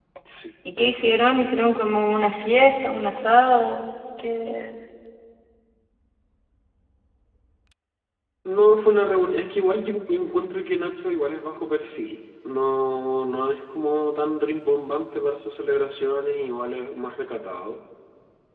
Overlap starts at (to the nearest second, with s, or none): none